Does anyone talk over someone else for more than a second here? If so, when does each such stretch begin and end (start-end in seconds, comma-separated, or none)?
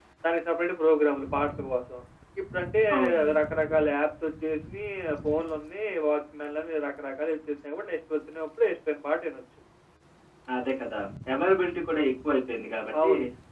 none